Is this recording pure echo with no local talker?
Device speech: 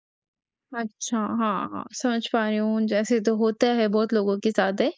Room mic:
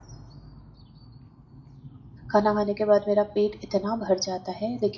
No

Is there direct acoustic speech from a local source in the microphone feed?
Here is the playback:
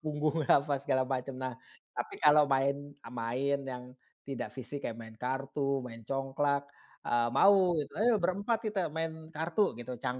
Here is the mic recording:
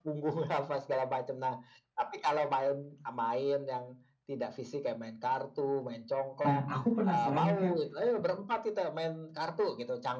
Yes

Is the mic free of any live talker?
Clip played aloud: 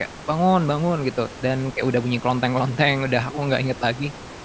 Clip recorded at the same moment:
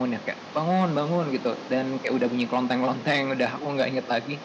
Yes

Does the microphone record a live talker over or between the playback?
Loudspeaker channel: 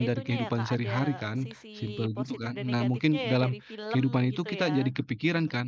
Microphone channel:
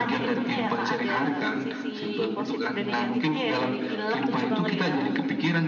Yes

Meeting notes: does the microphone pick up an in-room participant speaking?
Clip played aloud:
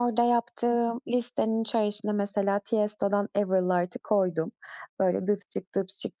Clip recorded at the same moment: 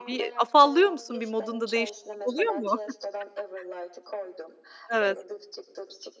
Yes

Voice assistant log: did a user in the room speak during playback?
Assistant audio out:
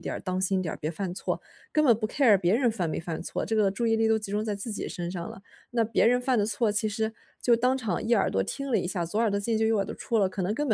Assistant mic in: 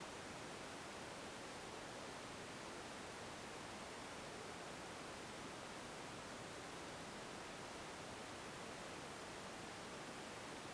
No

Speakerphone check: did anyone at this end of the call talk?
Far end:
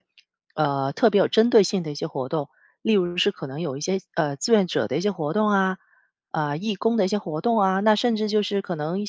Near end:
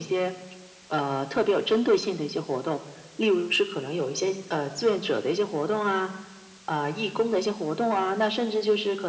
No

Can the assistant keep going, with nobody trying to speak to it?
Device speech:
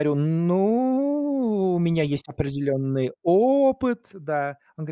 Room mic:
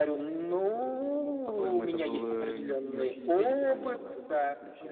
No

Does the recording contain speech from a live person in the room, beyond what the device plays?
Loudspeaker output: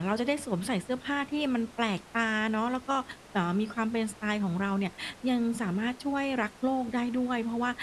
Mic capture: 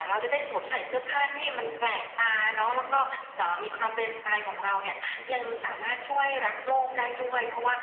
Yes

